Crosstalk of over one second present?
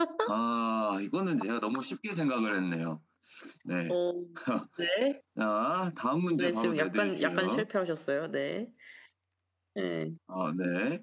Yes, from 6.4 s

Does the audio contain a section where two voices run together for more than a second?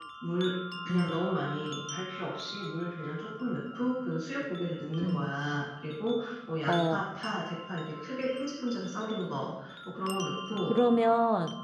No

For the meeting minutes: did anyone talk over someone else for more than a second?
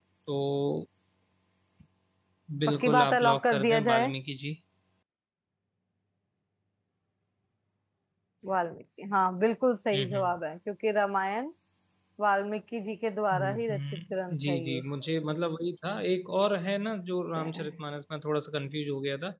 Yes, from 2.7 s

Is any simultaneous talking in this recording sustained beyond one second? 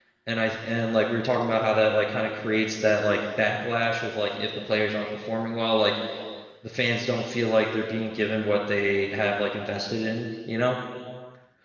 No

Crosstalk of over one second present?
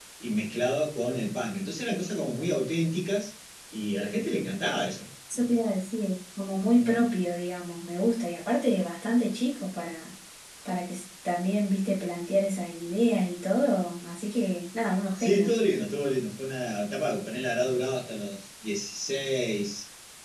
No

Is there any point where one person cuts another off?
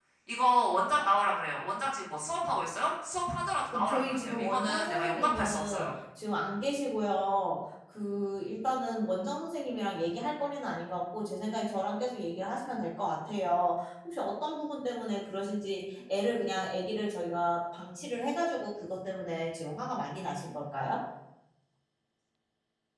Yes, from 3.7 s

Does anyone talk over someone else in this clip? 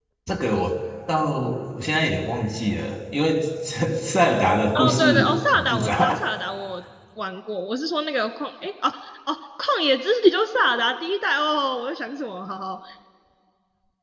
Yes, from 4.8 s

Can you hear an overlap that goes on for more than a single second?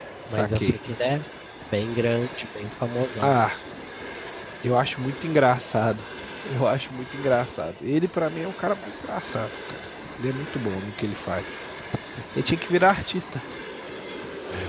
No

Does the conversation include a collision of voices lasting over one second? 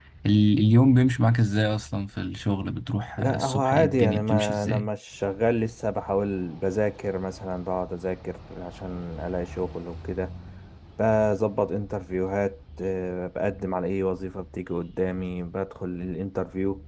Yes, from 3.2 s

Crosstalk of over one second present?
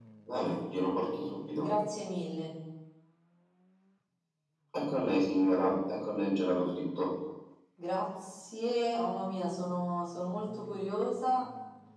No

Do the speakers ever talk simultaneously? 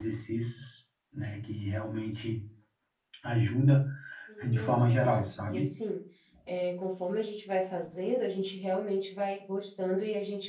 Yes, from 4.5 s

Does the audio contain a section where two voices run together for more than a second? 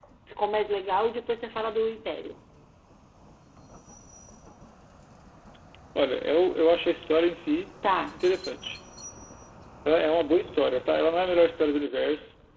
No

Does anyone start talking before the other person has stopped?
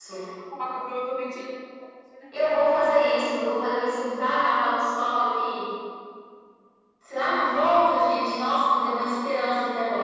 No

